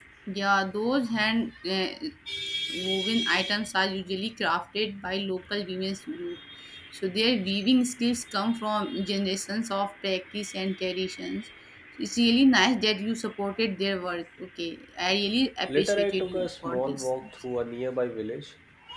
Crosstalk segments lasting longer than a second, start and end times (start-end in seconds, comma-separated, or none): 15.7-17.1